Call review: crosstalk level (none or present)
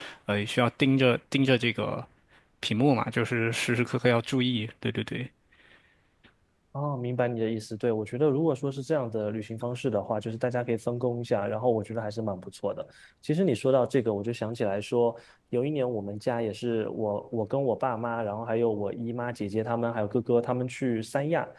none